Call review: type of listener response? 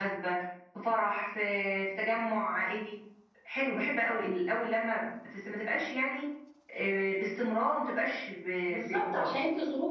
taking over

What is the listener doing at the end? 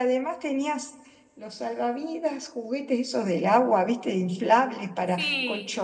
listening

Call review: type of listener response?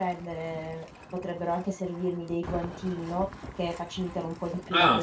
taking over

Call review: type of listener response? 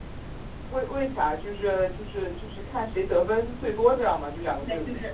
taking over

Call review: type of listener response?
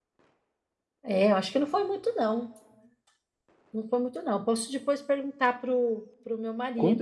taking over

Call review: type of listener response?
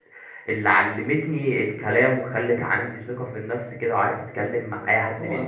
taking over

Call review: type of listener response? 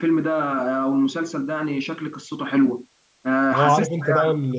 taking over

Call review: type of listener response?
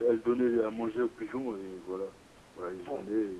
taking over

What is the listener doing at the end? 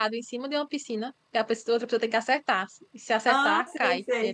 taking over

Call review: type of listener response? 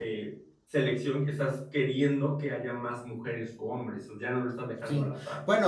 taking over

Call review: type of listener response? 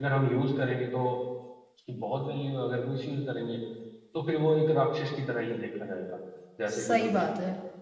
taking over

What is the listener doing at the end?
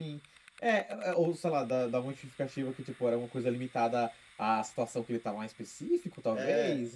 taking over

